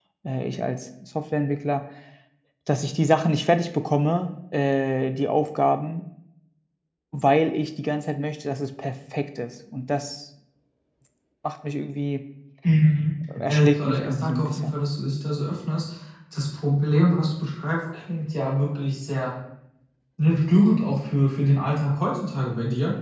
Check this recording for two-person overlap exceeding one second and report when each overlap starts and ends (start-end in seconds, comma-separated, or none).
13.5-14.8